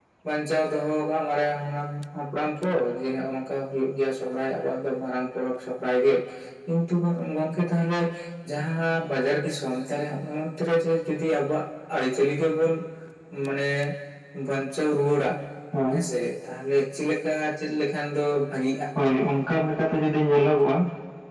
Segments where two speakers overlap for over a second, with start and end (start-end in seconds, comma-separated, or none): none